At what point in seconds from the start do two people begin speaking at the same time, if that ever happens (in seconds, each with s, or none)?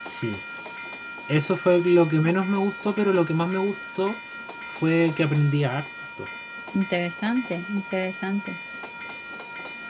none